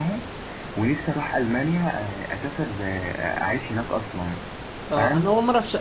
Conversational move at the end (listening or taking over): taking over